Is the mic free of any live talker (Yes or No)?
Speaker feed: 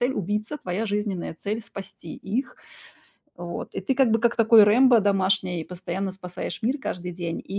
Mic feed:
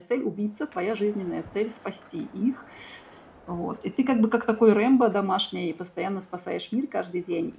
Yes